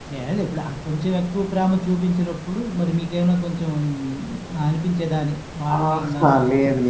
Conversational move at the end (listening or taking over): taking over